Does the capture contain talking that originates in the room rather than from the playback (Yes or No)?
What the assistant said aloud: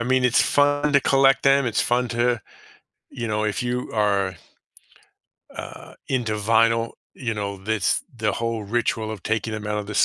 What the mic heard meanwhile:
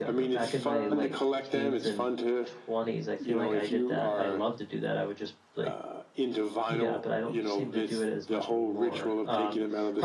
Yes